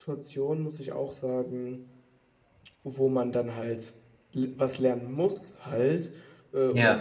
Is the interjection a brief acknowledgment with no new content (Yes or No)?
Yes